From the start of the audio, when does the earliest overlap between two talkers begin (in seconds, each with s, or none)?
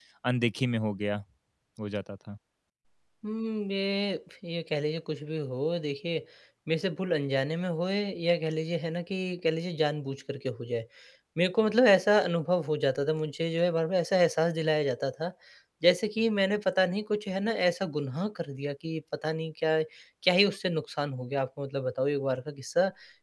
none